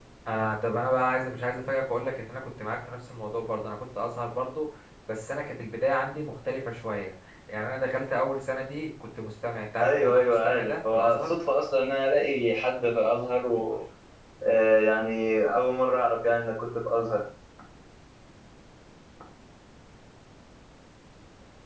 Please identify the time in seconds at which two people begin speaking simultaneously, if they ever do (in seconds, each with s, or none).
9.8 s